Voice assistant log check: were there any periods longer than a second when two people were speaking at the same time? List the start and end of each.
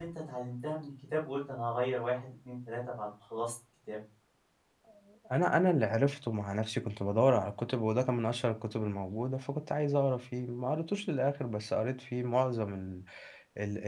none

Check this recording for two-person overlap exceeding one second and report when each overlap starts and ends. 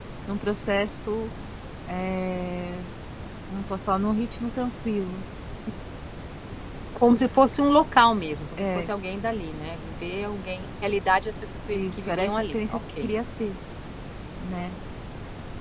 11.7-13.1

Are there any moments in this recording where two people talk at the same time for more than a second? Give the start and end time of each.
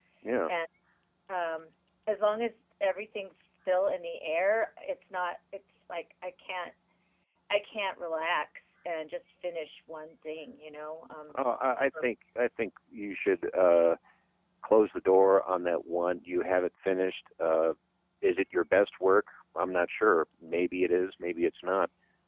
none

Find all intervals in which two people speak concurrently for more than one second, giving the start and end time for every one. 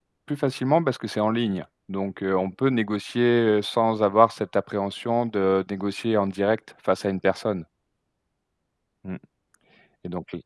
none

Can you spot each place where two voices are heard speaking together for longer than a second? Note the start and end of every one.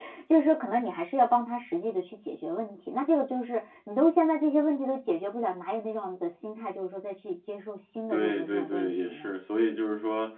8.1-9.4

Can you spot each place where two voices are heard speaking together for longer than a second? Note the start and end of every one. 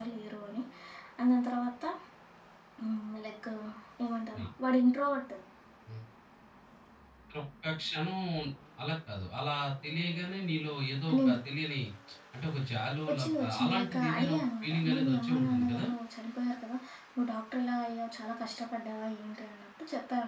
13.1-15.8

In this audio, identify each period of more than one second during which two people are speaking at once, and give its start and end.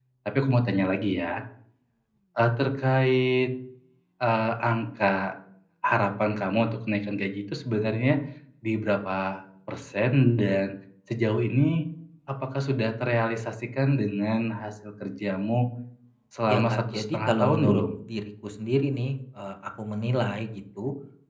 16.5-17.8

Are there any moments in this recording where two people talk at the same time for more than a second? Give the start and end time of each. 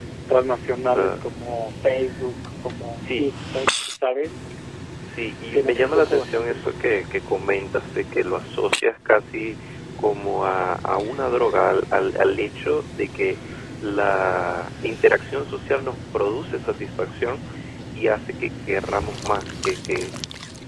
5.5-7.0

